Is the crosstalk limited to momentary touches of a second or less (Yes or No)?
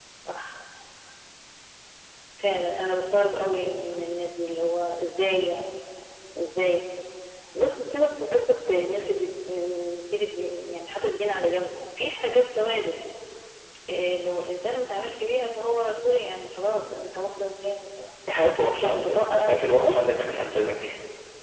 No